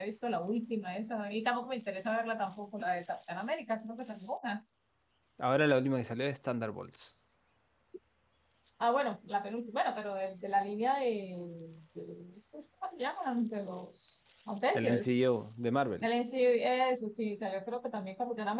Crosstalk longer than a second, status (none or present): none